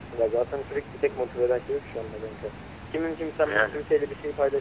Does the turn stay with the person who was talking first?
Yes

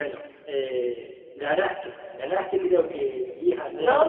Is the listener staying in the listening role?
No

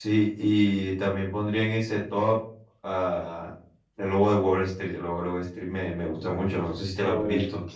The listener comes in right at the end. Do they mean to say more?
Yes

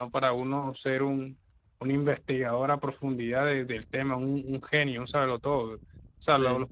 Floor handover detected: No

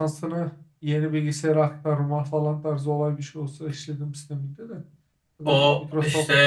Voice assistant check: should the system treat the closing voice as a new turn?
Yes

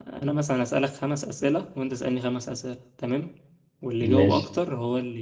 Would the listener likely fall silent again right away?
Yes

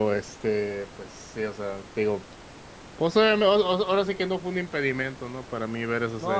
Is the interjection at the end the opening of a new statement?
Yes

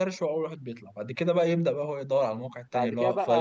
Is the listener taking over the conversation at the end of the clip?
Yes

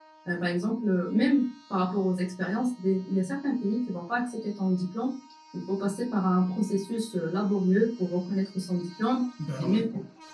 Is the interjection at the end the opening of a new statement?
No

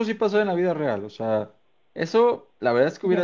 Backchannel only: Yes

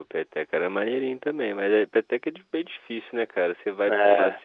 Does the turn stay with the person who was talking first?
Yes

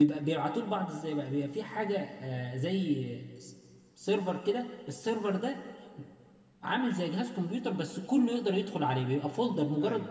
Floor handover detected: No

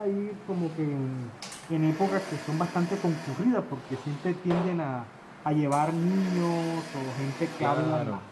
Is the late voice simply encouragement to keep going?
Yes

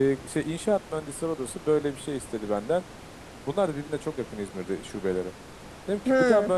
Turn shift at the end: No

